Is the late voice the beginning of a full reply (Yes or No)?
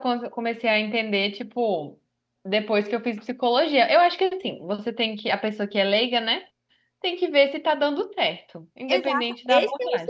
Yes